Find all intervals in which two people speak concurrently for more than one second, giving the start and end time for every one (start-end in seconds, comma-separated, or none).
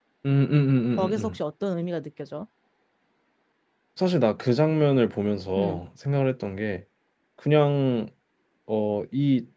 none